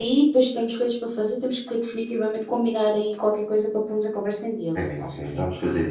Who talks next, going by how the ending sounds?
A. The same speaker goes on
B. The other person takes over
B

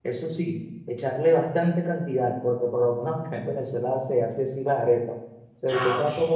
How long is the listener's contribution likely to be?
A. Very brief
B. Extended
A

